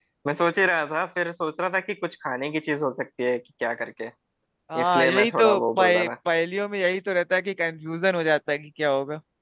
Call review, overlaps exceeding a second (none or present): present